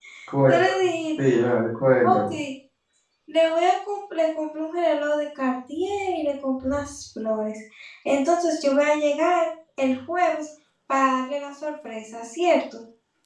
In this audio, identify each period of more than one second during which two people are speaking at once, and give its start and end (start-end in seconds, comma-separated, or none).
none